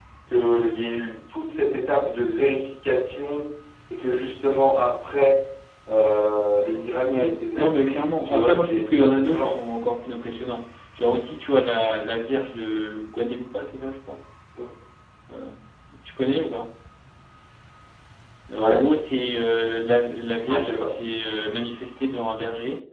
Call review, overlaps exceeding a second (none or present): present